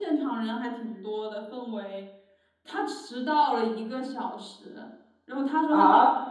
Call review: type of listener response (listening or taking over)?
taking over